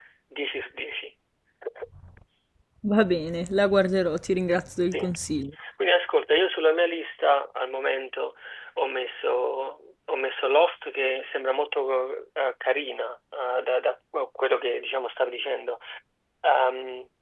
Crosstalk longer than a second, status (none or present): none